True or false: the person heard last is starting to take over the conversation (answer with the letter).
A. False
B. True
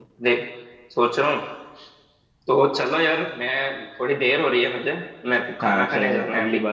B